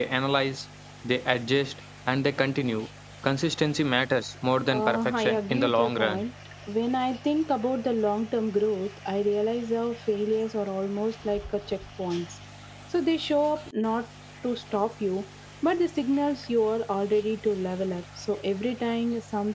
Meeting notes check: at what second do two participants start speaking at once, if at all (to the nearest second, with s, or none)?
5 s